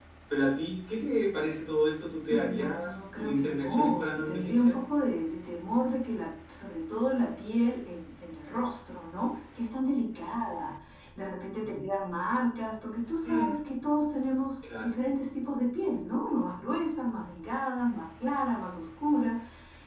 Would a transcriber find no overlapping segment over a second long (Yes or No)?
No